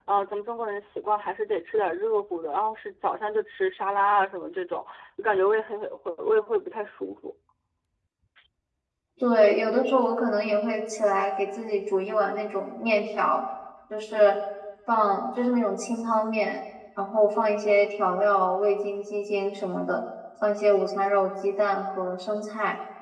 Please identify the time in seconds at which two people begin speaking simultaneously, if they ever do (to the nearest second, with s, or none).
none